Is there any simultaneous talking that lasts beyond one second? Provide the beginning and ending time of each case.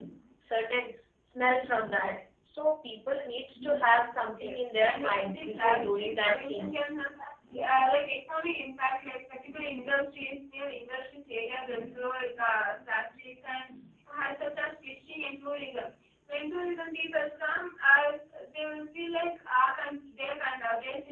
4.4-6.9

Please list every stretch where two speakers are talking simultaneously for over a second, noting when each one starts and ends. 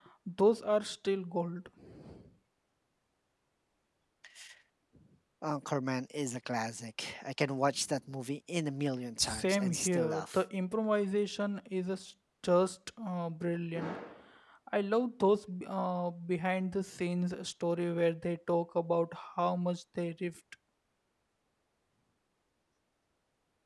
9.2-10.4

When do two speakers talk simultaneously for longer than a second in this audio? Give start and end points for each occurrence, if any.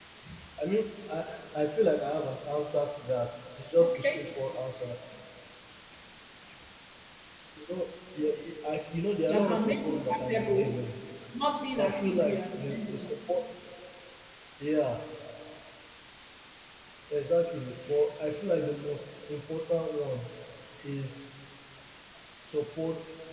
9.3-10.9, 11.8-13.1

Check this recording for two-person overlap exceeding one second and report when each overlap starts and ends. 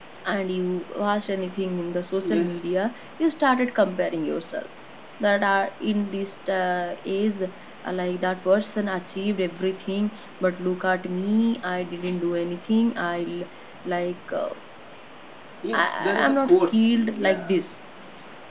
15.7-17.6

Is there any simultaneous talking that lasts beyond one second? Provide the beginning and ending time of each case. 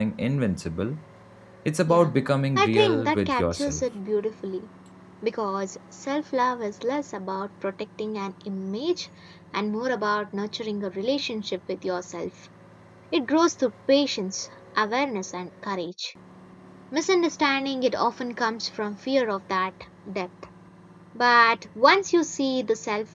2.5-3.8

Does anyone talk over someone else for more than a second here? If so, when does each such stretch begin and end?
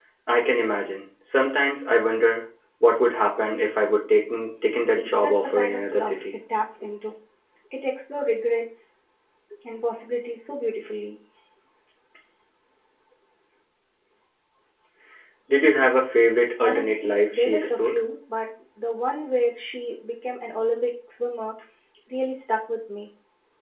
4.8-6.4, 16.6-18.0

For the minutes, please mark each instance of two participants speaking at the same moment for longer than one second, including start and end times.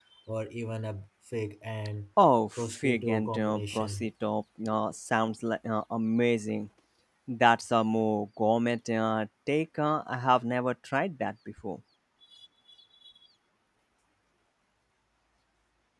2.6-4.0

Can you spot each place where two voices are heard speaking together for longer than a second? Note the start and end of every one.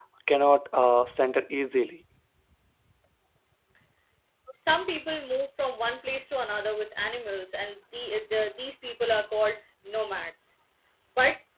none

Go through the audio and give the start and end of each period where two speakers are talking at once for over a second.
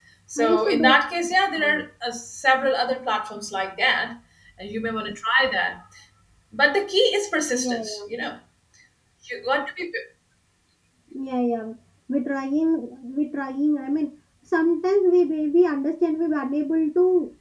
none

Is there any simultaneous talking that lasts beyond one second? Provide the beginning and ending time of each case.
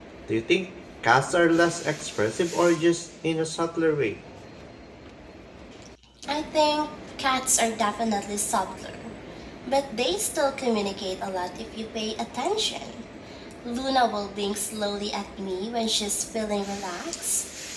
none

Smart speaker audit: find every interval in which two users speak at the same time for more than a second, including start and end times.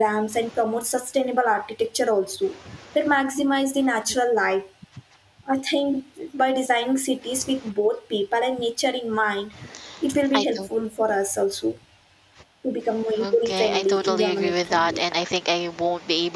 13.2-15.0

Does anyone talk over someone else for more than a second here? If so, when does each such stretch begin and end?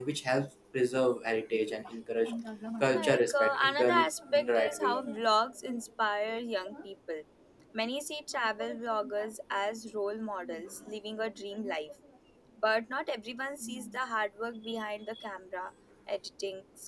2.9-5.0

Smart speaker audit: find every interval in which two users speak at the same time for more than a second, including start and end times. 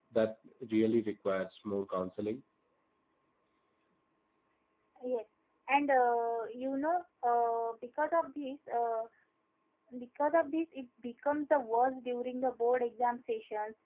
none

